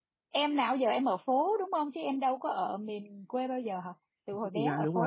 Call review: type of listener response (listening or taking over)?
taking over